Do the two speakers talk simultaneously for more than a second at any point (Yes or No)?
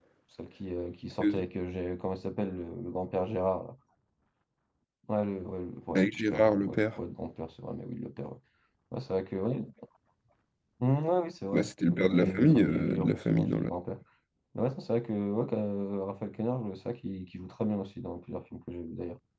Yes